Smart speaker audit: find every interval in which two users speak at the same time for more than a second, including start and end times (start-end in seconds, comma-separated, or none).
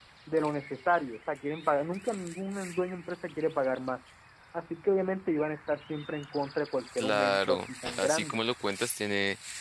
7.0-8.4